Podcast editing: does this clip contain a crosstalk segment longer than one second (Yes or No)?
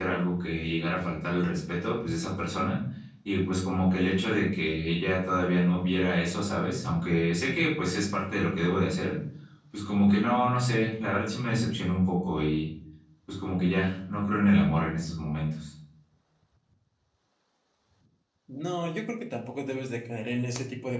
No